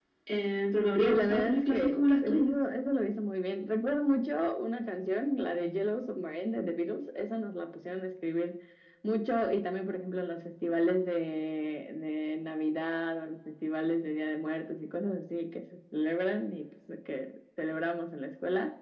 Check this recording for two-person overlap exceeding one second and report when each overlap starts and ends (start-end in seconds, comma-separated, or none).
1.0-2.5